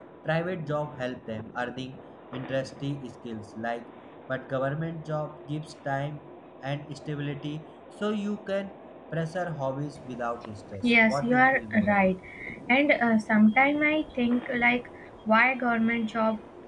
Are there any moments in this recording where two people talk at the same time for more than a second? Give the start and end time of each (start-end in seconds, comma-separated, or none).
10.8-12.1